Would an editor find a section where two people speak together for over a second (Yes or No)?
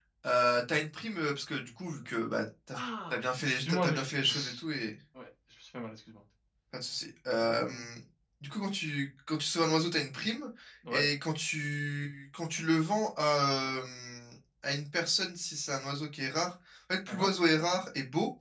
Yes